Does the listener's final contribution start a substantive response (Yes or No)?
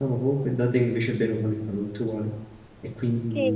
Yes